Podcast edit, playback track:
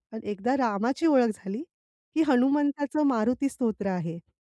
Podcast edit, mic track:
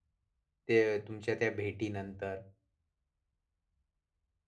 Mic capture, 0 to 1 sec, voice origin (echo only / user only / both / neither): user only